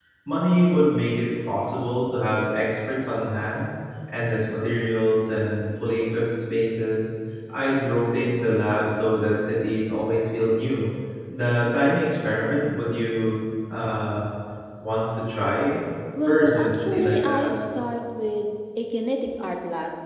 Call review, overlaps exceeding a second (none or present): present